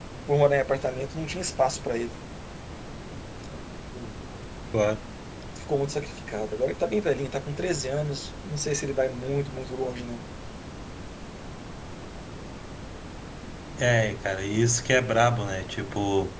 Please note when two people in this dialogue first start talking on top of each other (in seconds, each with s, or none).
none